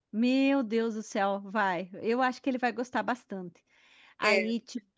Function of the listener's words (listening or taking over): taking over